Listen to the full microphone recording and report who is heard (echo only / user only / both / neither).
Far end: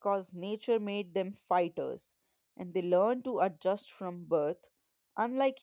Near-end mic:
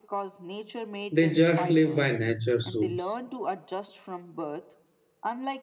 both